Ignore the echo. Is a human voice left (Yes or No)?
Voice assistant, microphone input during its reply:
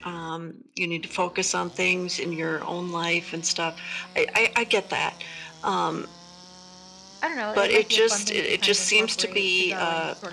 Yes